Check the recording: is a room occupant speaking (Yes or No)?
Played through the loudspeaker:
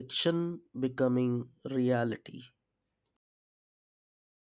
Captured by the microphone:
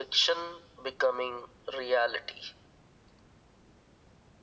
No